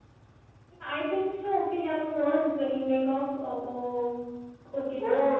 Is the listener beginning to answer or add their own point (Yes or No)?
Yes